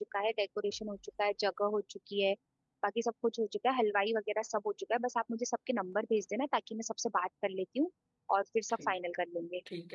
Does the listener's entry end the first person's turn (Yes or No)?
Yes